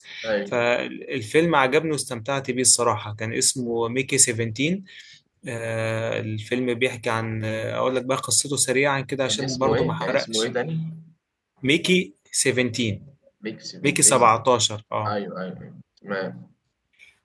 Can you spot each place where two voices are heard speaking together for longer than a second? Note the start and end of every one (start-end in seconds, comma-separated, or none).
9.3-10.5